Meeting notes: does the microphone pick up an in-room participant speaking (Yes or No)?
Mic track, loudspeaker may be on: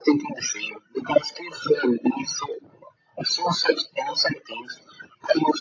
No